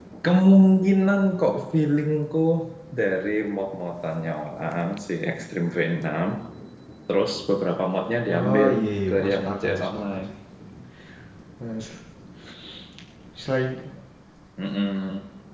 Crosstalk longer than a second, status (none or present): present